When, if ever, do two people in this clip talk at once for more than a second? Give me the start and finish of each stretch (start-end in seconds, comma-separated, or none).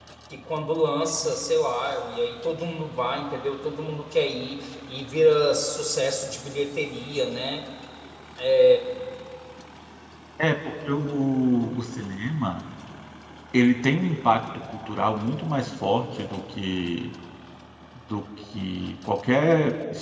none